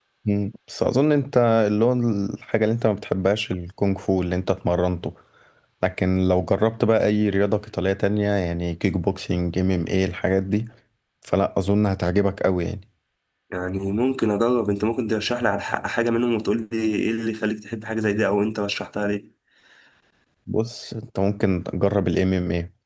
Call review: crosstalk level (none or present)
none